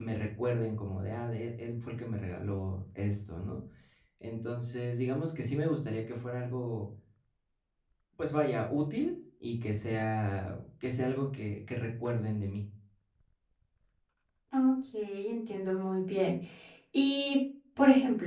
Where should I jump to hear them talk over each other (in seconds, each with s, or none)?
none